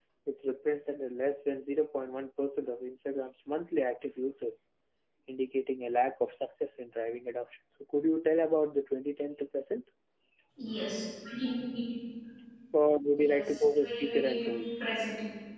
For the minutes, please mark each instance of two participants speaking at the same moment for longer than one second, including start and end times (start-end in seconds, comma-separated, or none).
13.2-14.8